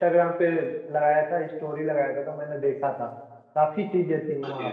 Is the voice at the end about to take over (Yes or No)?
No